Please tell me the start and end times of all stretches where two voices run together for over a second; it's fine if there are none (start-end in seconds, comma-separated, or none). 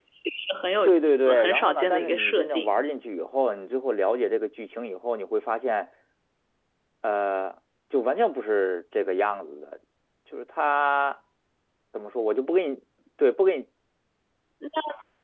0.8-2.8